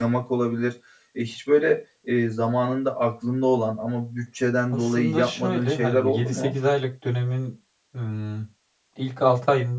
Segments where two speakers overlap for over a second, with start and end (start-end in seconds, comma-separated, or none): 4.7-6.5